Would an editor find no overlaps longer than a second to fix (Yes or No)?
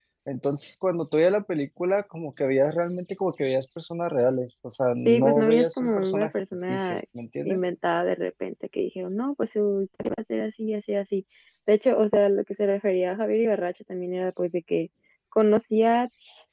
No